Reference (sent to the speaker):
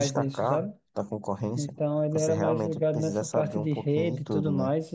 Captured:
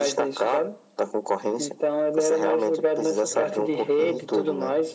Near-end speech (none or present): present